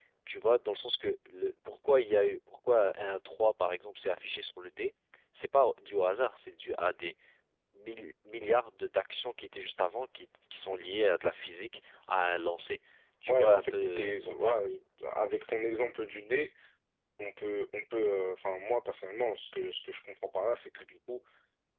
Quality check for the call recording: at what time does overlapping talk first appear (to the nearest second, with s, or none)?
13 s